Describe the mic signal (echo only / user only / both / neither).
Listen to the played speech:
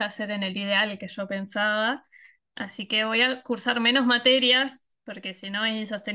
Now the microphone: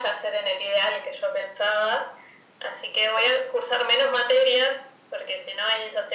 echo only